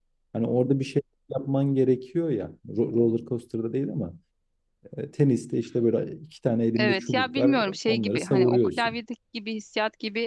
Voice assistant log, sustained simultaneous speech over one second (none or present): present